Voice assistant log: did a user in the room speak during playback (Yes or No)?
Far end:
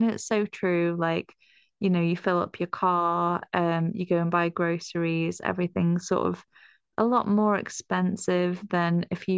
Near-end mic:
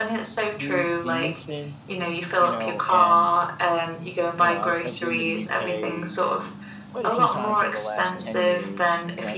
Yes